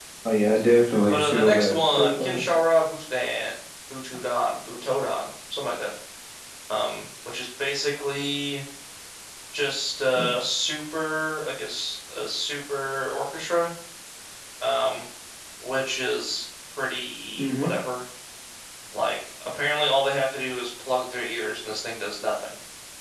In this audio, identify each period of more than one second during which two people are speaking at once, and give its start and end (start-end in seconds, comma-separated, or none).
1.1-2.6